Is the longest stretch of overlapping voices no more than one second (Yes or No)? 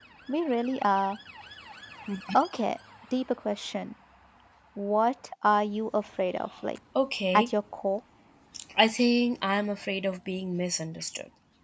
Yes